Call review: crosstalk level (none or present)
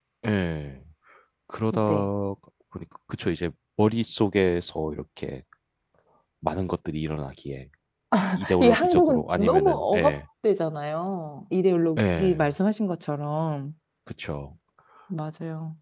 present